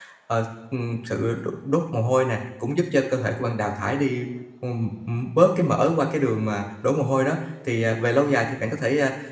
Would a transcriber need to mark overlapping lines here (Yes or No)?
No